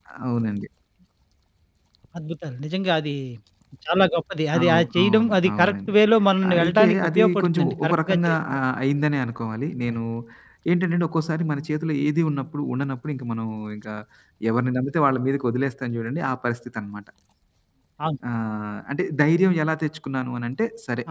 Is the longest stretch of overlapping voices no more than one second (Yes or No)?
No